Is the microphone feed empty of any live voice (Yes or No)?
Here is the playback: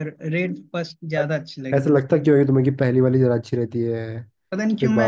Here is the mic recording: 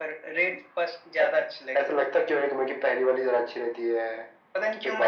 Yes